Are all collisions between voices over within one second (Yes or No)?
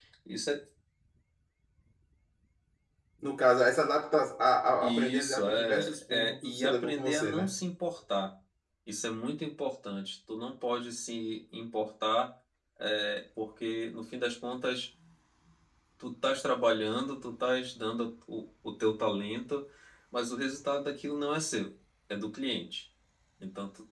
No